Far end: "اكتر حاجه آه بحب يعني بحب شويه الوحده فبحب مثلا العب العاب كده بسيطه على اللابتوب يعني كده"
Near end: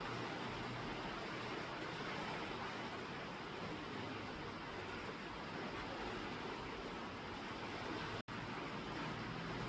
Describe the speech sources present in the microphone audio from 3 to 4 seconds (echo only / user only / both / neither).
neither